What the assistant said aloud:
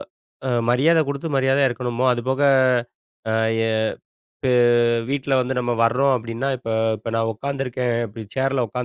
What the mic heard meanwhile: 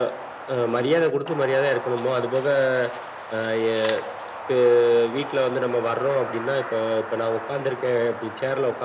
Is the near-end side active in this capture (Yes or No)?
No